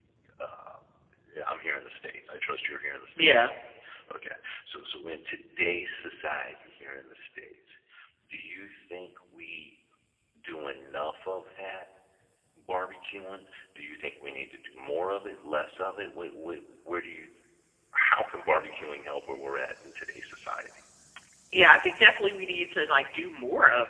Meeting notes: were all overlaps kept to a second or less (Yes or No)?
Yes